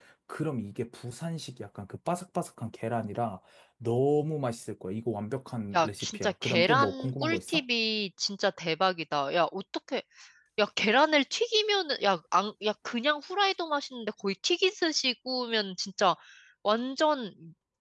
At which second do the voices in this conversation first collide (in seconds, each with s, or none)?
5.7 s